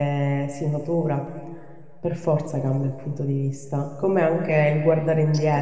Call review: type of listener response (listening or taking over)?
listening